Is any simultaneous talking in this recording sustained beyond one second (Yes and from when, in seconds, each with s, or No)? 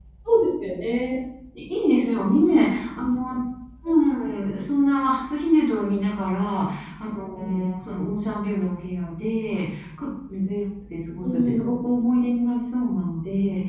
No